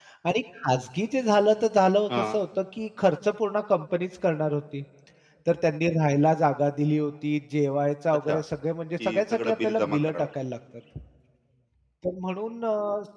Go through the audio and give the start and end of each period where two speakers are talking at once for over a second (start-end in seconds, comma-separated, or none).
9.0-10.3